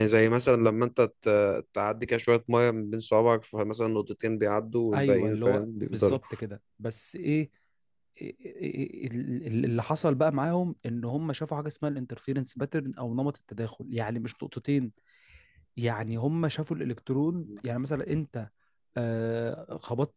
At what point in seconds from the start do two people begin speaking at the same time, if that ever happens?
4.9 s

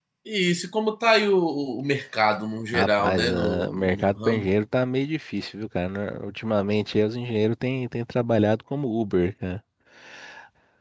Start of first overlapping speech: 2.7 s

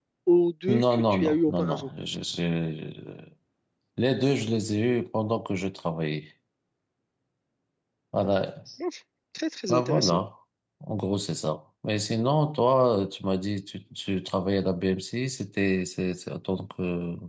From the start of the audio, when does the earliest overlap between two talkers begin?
0.7 s

